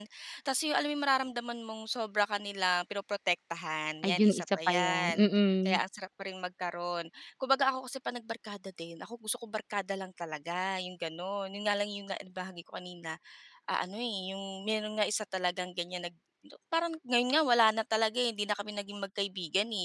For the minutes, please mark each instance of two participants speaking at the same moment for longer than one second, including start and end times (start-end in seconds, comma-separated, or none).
4.0-5.2